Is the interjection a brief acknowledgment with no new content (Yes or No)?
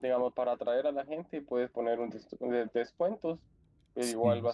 Yes